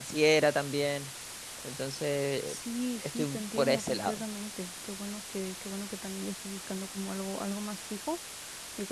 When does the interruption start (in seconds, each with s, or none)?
3.0 s